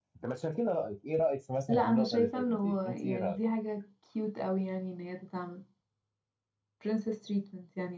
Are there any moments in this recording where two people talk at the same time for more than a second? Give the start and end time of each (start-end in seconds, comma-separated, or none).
1.7-3.4